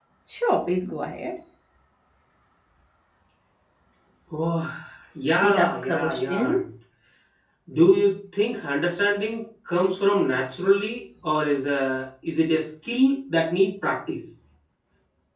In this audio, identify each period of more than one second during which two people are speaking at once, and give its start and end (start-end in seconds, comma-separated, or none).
5.4-6.6